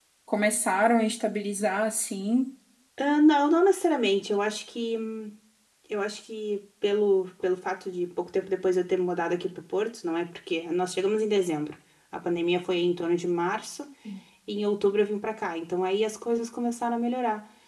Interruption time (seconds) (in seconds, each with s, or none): none